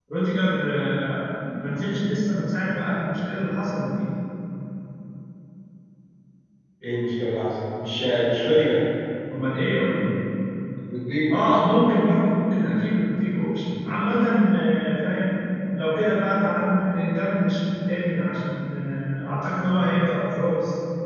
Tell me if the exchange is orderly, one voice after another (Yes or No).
Yes